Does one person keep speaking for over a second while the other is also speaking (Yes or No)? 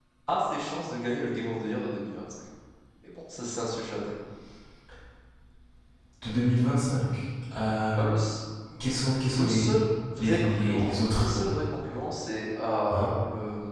Yes